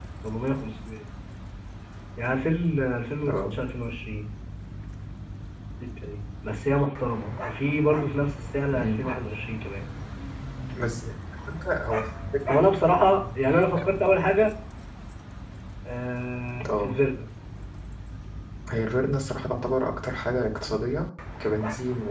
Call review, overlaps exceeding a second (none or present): none